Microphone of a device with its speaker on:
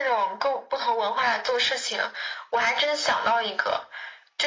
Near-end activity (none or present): none